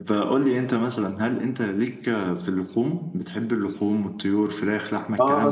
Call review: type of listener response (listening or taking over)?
taking over